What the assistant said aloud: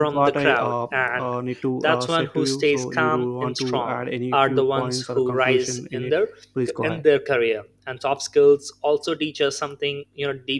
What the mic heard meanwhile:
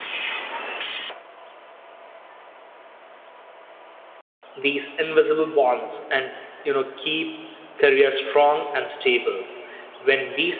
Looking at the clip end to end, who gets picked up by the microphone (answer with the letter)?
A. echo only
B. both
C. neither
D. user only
D